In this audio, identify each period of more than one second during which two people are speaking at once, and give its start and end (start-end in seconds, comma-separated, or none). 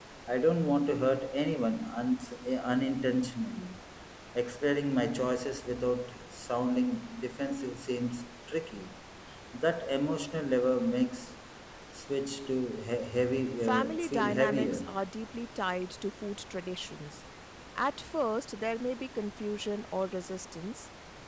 13.6-14.8